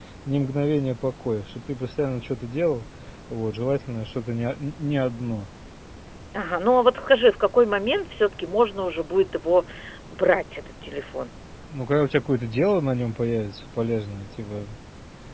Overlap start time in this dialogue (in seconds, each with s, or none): none